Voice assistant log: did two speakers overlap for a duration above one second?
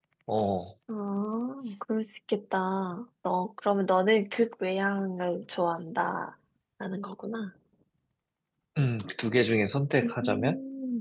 No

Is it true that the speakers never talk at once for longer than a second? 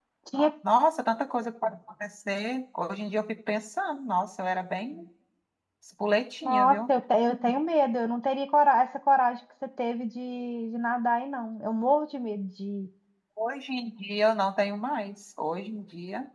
Yes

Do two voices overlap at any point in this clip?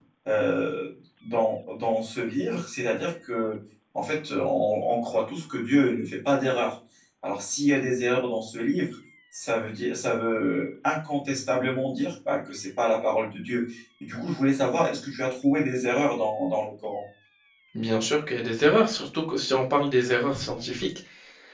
No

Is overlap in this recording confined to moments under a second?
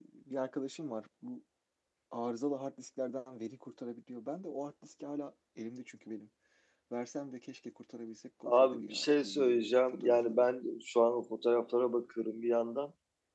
No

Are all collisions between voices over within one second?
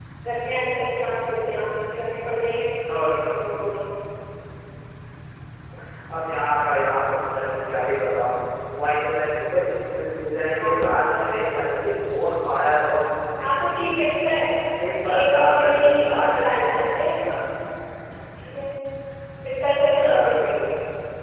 No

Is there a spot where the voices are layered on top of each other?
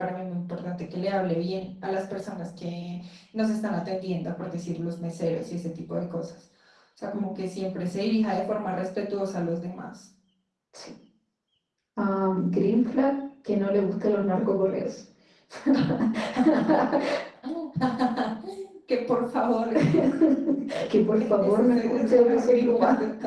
Yes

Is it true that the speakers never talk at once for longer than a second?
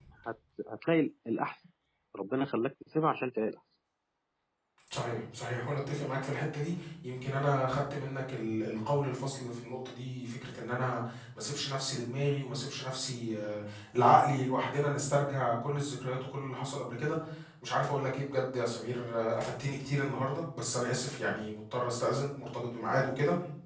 Yes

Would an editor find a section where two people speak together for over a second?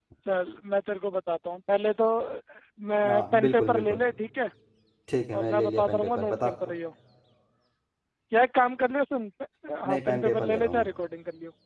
Yes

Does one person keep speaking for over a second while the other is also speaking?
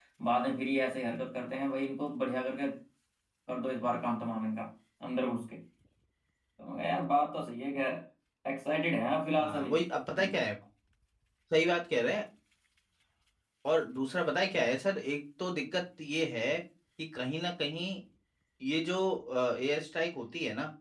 No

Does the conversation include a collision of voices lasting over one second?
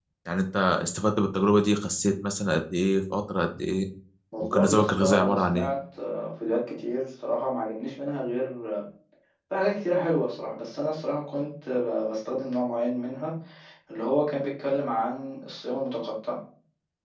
Yes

